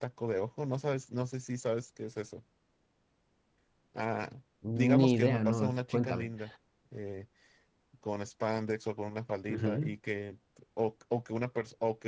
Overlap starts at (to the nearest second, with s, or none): 5 s